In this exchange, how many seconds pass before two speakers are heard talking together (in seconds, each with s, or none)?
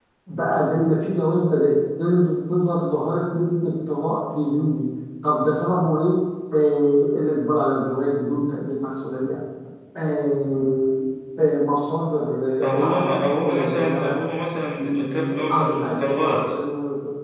12.7 s